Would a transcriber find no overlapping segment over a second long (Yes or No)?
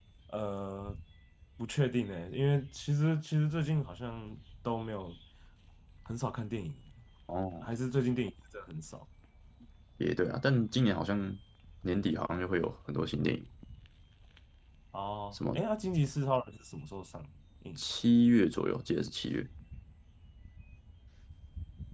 Yes